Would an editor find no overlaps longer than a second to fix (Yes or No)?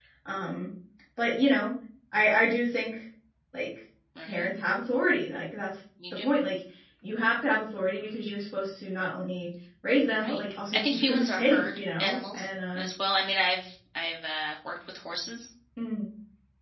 No